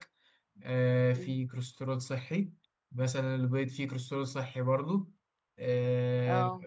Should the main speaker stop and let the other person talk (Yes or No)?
No